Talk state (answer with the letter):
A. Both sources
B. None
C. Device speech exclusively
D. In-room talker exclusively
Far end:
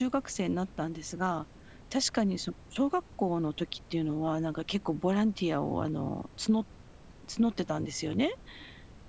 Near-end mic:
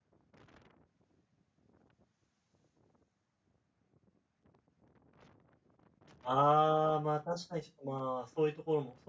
D